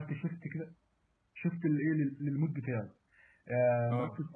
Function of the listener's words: listening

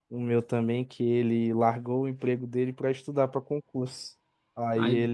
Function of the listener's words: listening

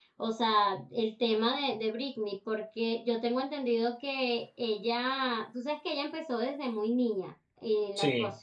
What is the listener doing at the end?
listening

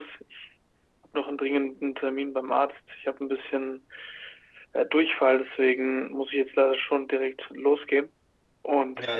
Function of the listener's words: taking over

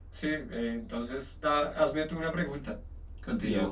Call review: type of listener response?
taking over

